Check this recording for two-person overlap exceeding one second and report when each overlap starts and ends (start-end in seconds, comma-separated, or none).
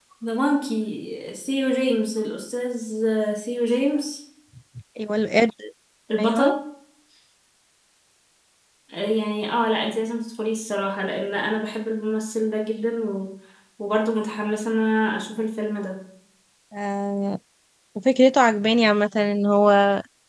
none